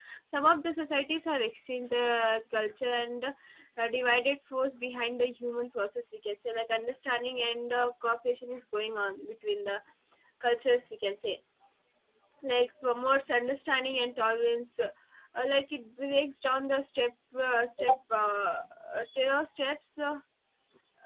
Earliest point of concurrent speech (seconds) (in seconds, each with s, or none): none